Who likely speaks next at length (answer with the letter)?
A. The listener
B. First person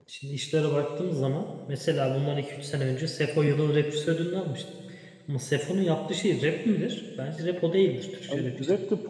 A